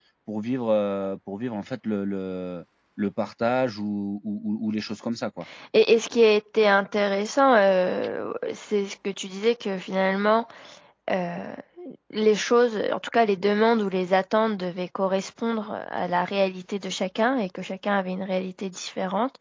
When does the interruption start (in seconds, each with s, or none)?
none